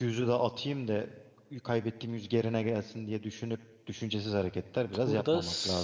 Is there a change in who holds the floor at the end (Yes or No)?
Yes